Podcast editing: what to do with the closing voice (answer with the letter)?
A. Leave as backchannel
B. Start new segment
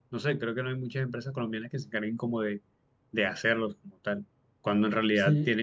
A